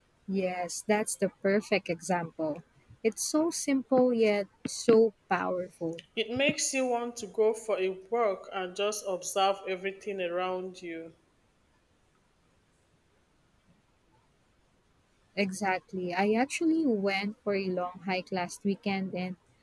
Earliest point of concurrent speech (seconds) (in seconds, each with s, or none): none